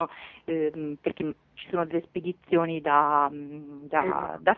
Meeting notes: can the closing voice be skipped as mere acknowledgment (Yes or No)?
Yes